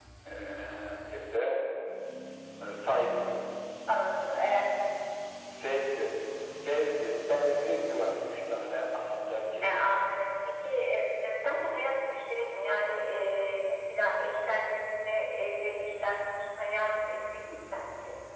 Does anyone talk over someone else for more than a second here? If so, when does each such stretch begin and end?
none

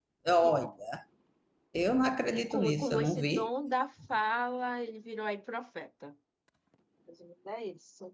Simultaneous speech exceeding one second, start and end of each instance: 2.3-3.5

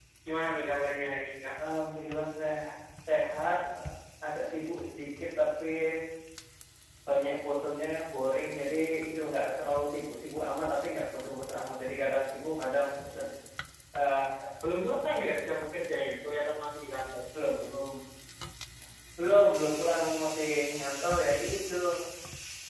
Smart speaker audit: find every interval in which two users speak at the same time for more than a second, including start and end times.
none

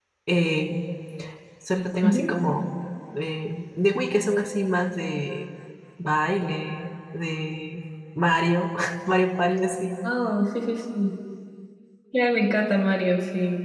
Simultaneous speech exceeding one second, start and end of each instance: none

